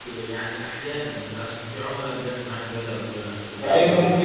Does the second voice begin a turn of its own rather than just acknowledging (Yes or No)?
Yes